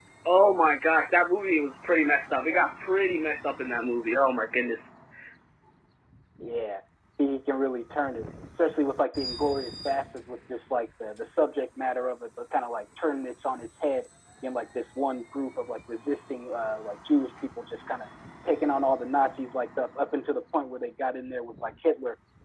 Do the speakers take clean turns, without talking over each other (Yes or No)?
Yes